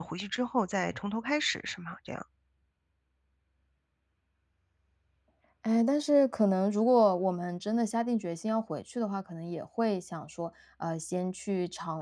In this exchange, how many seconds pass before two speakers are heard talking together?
none

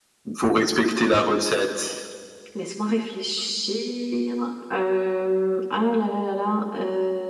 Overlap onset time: none

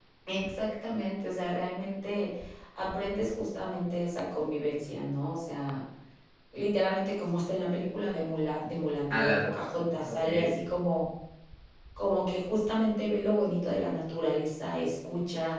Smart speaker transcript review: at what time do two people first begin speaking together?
9.1 s

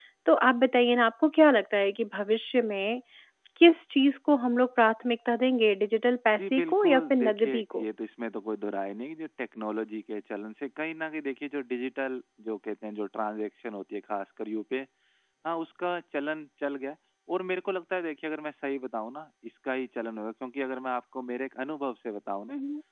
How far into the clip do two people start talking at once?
6.4 s

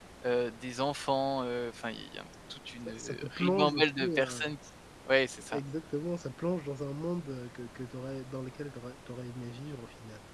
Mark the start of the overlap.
2.9 s

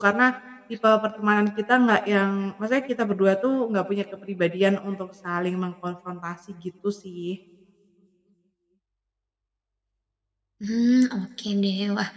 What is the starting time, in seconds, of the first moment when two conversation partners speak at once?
none

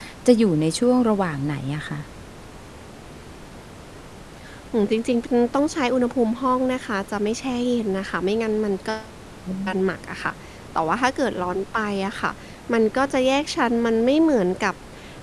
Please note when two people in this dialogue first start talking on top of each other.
none

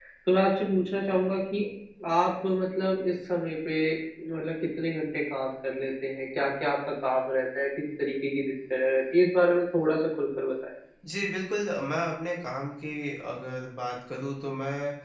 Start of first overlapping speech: none

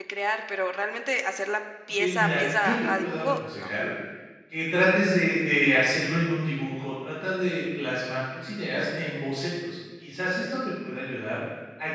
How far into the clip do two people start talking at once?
1.9 s

